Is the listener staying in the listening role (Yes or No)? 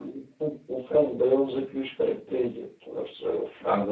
No